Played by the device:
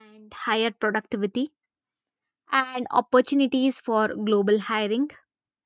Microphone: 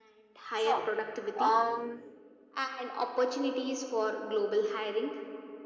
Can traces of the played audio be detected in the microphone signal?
Yes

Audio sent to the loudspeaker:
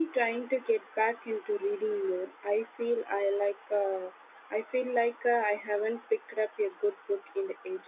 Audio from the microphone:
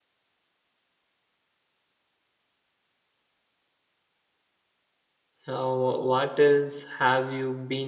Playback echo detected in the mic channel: No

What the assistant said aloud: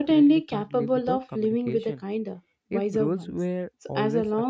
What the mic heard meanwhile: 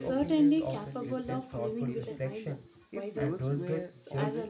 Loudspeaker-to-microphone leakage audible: Yes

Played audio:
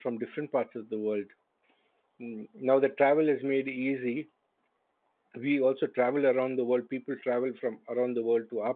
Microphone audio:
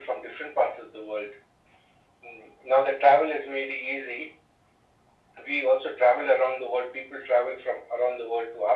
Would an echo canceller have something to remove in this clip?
Yes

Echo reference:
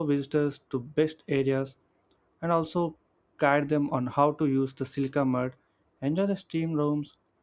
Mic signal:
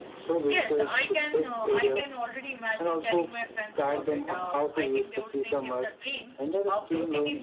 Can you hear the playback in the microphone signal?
Yes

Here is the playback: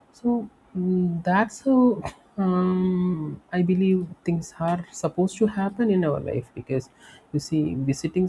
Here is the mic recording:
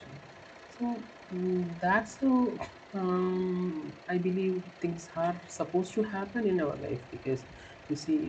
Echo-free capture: No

